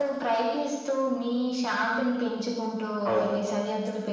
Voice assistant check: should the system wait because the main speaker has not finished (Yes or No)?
Yes